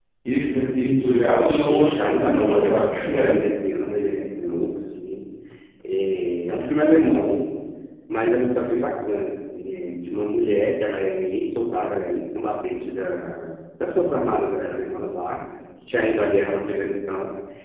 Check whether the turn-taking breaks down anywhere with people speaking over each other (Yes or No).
Yes